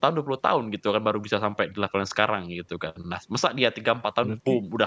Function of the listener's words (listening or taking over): listening